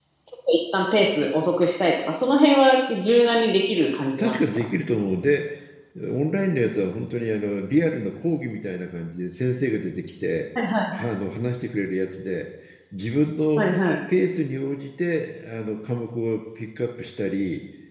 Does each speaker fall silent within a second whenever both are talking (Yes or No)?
Yes